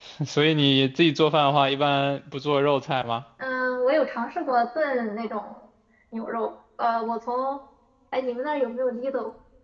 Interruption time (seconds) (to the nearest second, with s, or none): none